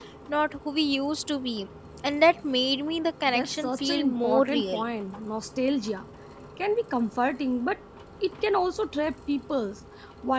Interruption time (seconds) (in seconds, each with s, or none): 3.3 s